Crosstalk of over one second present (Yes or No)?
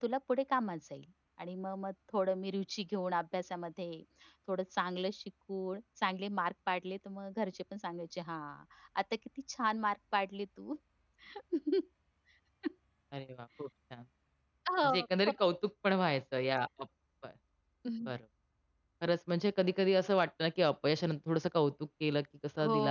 No